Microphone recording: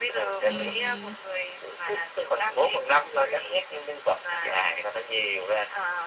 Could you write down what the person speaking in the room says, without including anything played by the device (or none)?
Ừm, ừm.